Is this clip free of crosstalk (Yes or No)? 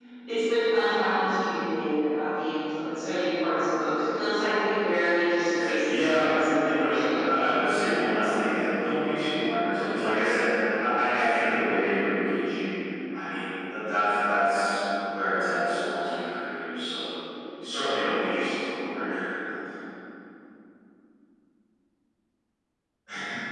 No